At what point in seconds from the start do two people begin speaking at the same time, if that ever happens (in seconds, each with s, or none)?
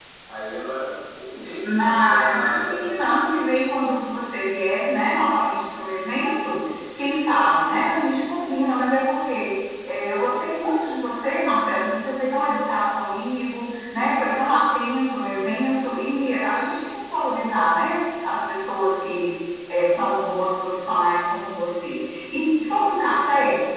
1.6 s